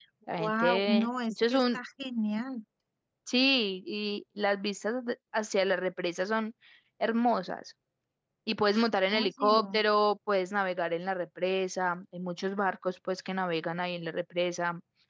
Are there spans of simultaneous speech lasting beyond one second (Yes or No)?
Yes